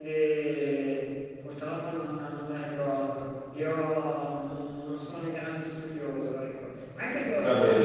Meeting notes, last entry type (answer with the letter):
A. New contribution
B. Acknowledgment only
B